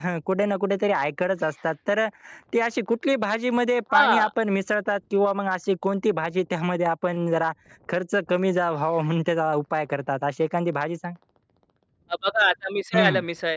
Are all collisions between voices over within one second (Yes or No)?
Yes